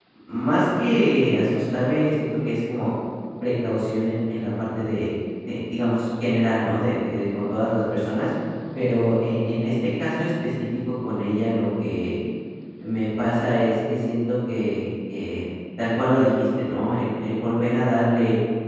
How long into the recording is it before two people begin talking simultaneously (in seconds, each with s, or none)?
none